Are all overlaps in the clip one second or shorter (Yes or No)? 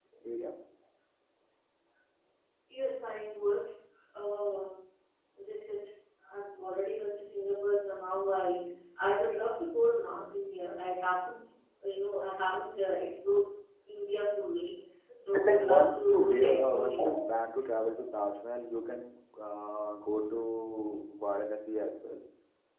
No